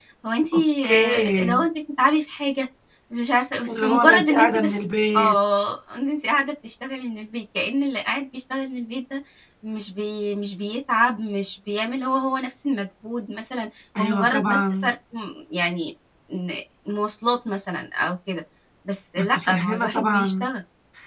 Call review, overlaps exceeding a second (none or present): present